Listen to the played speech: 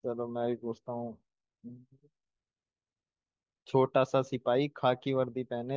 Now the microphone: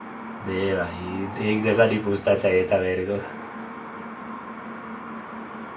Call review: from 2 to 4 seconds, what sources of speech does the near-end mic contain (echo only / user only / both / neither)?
user only